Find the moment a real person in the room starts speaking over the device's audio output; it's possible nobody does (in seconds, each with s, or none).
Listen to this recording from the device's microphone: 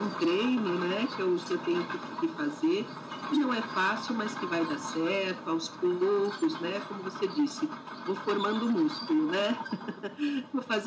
none